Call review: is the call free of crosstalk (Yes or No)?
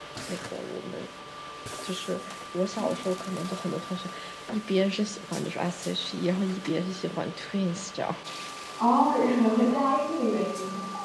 Yes